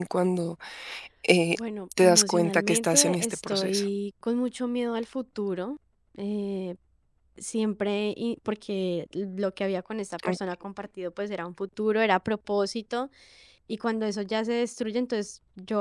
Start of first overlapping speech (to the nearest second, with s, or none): 2 s